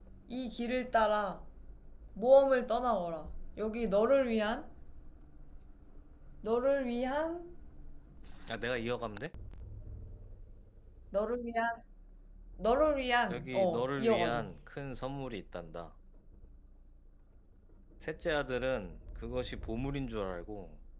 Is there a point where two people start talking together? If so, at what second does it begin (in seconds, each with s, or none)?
13.3 s